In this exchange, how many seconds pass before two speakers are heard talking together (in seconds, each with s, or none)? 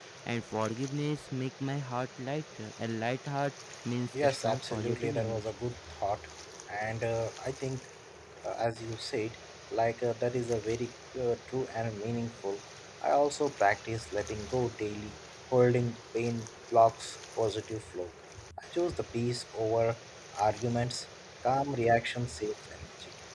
4.1 s